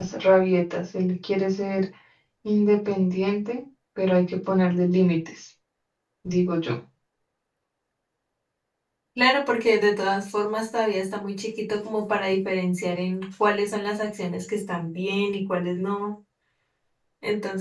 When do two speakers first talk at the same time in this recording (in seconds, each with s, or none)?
none